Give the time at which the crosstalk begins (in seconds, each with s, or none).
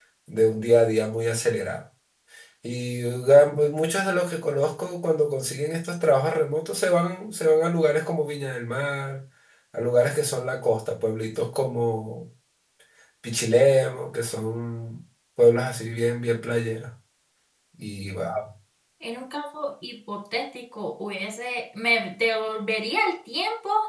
none